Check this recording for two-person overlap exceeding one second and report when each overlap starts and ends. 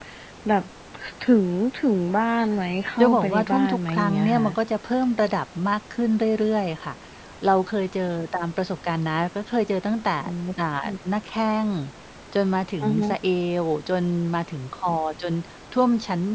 3.0-4.5

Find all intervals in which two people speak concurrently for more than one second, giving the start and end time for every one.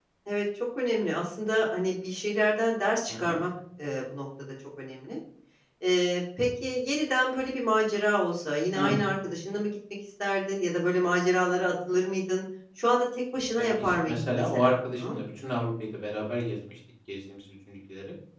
13.6-15.2

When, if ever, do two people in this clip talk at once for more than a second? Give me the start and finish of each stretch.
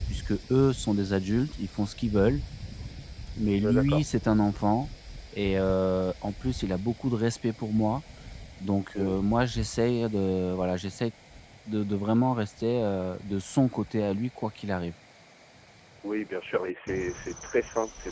none

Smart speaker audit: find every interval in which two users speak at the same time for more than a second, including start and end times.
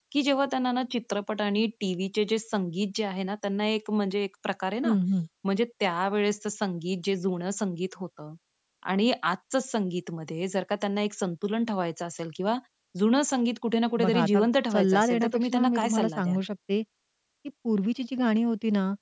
14.0-16.4

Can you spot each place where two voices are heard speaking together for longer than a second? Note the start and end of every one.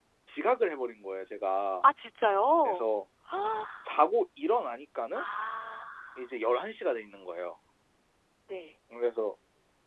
none

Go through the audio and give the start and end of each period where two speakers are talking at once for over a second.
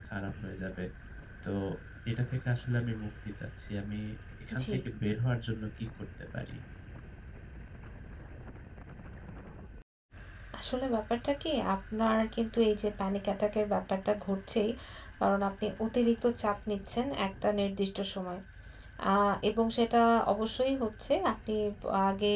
none

